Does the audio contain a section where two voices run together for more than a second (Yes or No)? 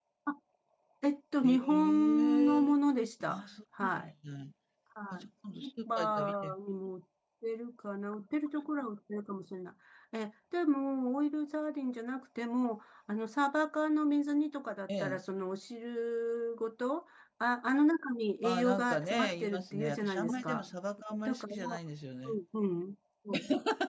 Yes